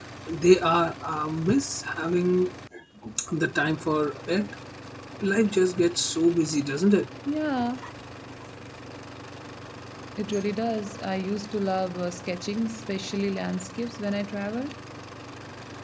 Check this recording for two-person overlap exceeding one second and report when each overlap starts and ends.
none

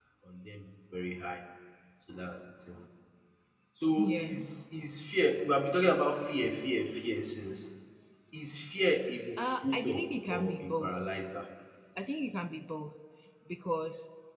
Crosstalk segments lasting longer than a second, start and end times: 9.6-11.0

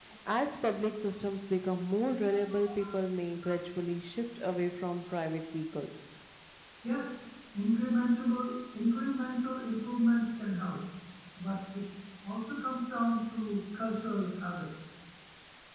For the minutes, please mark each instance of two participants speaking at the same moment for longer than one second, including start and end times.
none

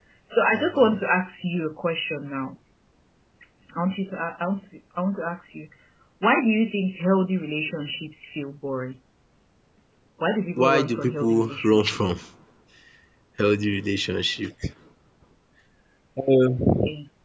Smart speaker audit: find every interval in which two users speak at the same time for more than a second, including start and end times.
10.6-12.2

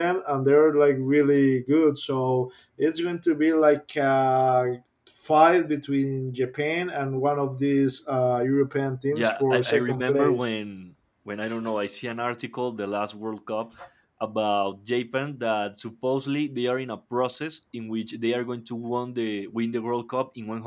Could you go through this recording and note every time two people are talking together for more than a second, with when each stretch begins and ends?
9.1-10.5

